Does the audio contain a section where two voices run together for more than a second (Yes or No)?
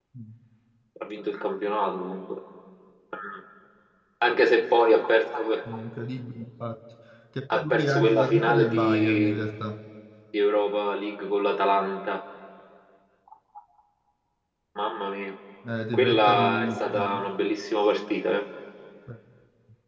Yes